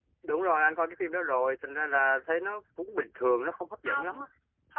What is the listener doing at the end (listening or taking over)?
taking over